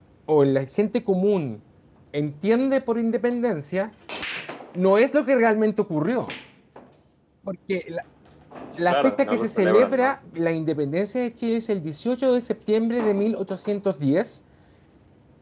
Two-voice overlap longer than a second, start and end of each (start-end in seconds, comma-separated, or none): 8.9-10.1